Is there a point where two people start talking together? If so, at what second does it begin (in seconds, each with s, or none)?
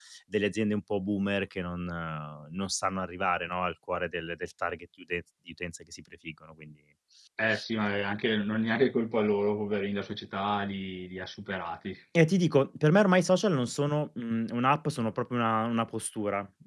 none